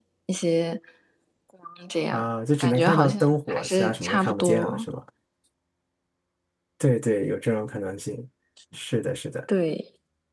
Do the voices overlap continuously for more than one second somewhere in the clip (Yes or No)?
Yes